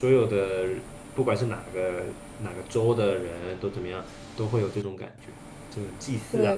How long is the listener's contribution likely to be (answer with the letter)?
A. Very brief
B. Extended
B